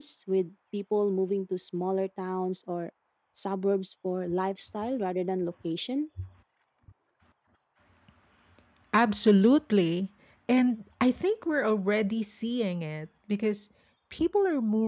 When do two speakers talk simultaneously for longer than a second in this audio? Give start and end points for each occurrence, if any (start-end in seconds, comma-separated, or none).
none